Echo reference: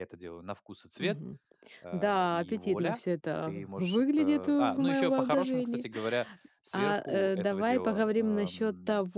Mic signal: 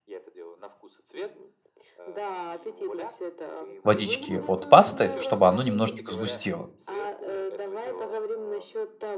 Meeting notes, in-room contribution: present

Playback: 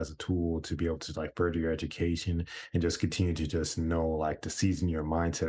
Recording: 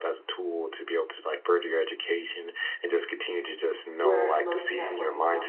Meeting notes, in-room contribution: present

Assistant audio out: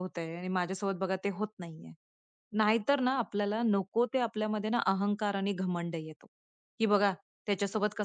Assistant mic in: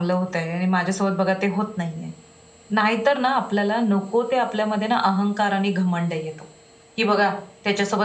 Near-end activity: none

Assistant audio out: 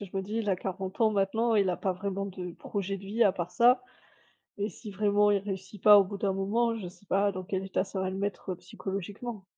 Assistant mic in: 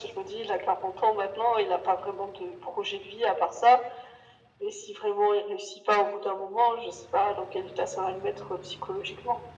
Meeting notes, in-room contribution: none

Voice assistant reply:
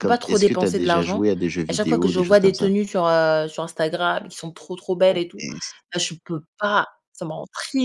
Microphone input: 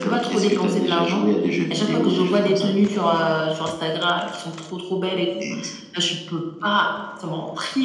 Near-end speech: none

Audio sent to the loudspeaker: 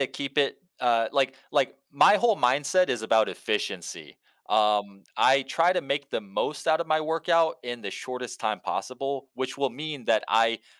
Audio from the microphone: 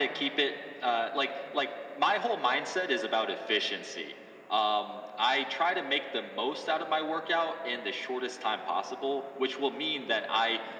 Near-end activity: none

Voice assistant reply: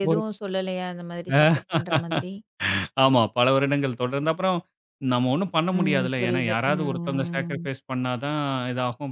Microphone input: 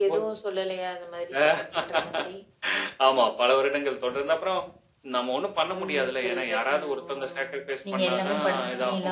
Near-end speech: present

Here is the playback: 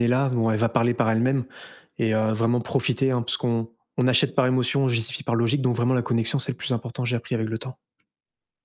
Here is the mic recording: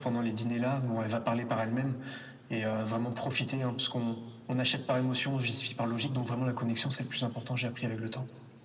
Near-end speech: none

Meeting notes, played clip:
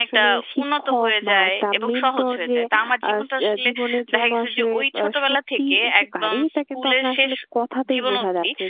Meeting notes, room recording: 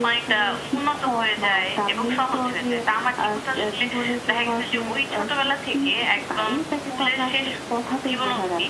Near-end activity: none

